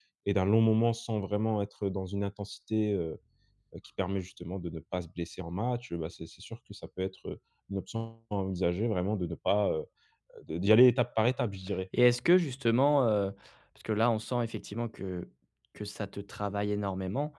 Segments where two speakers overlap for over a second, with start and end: none

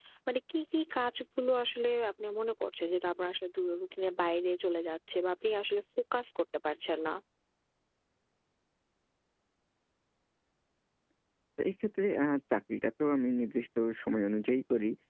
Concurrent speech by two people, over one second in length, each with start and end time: none

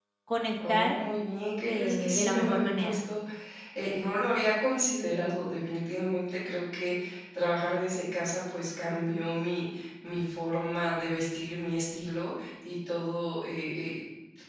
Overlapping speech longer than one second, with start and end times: 1.6-3.0

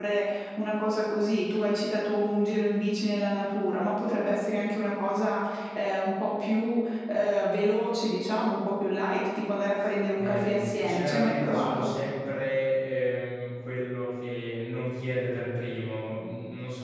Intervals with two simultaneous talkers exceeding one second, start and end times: 10.2-11.9

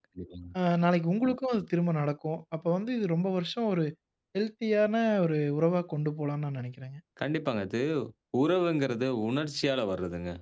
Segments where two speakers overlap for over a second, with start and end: none

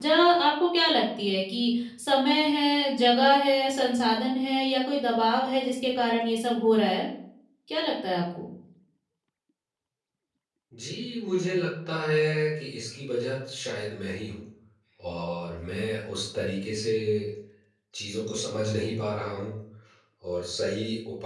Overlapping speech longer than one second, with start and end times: none

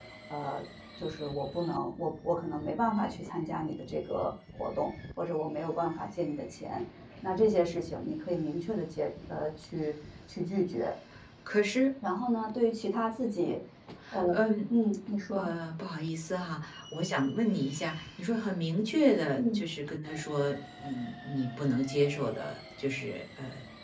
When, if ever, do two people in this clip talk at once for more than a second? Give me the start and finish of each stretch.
none

